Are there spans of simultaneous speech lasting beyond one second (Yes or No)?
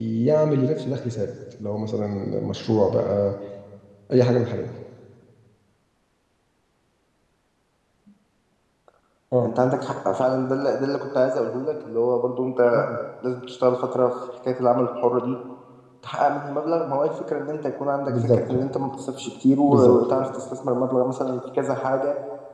No